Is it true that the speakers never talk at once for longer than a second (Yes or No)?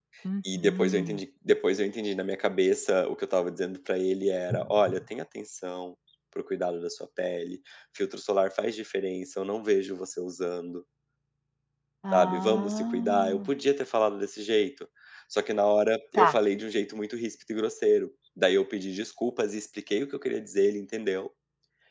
No